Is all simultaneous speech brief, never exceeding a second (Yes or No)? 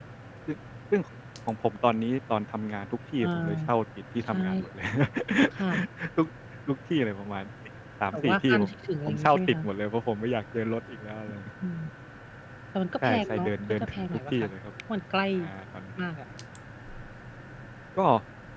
No